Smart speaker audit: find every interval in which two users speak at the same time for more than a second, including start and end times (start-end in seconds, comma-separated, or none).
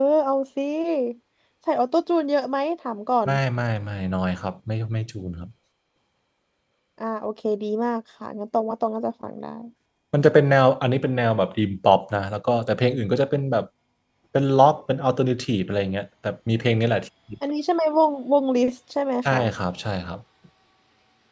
none